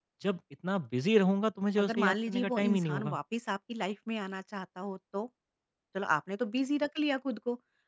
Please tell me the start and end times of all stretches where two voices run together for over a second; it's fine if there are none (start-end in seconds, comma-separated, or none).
1.8-3.2